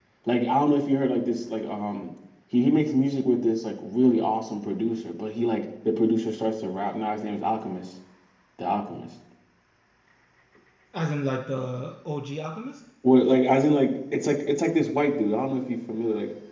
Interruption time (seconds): none

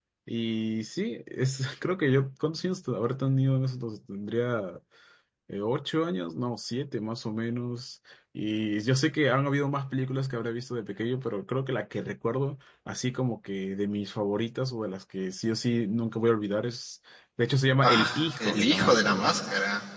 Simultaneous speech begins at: 18 s

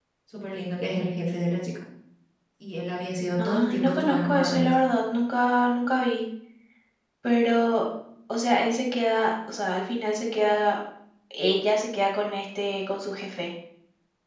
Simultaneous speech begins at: 3 s

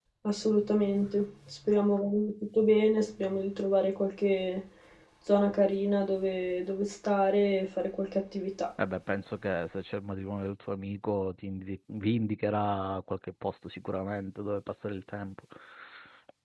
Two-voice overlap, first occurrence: none

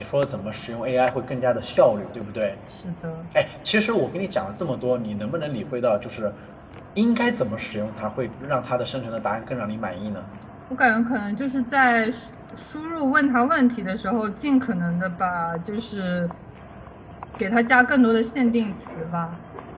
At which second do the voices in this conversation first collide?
none

